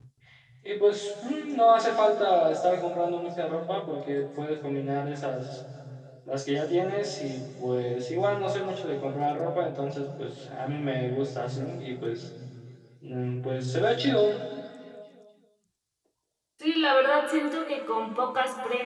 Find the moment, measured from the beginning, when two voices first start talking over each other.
none

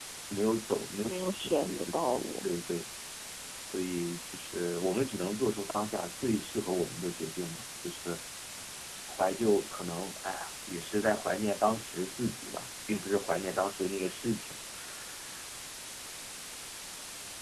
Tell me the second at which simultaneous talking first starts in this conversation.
1.1 s

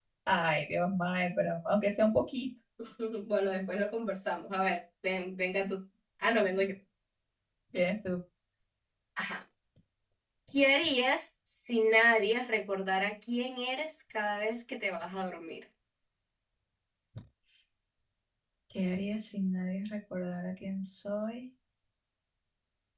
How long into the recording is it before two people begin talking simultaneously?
none

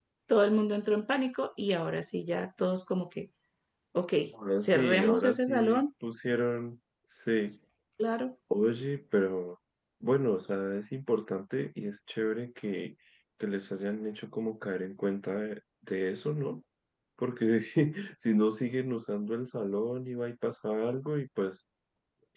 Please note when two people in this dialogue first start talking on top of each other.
4.6 s

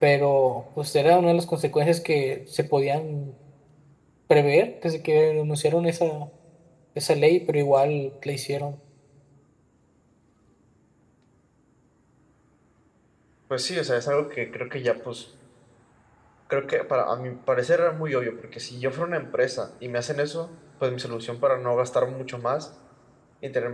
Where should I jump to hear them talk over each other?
none

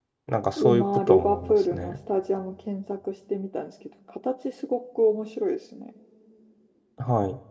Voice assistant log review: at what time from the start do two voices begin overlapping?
0.6 s

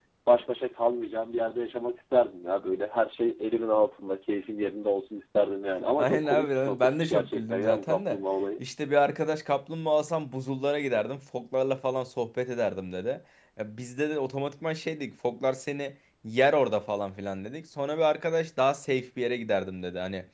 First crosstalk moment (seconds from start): 6.0 s

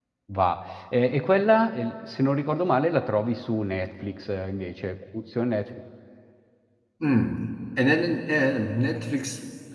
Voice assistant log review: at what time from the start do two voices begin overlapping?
none

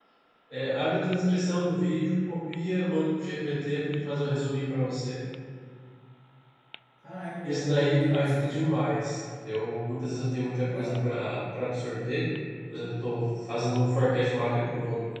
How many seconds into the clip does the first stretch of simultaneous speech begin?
7.4 s

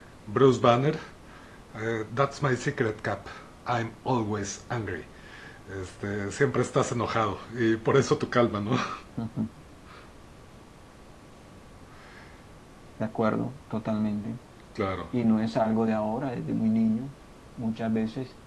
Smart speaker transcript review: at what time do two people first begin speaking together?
none

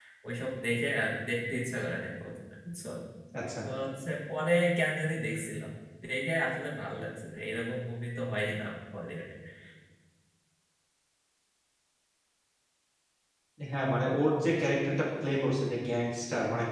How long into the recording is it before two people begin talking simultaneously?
none

